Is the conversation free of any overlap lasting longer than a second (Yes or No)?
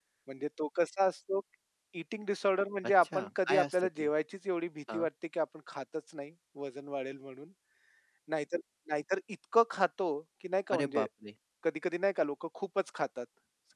No